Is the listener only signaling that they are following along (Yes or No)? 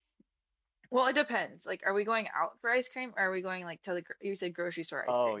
No